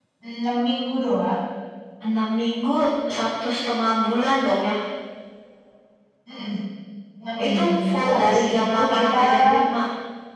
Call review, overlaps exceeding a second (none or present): present